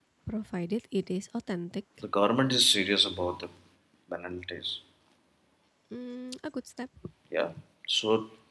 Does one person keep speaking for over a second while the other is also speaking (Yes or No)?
No